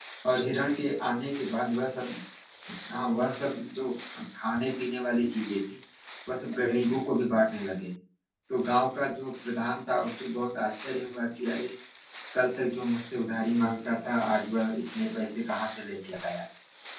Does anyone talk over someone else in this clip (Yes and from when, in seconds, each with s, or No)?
No